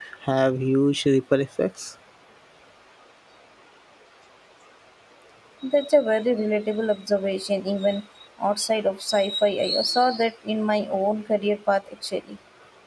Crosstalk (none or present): none